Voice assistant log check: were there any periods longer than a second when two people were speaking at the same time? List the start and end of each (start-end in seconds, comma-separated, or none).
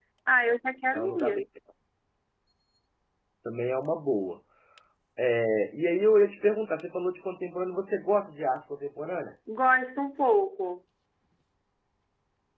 none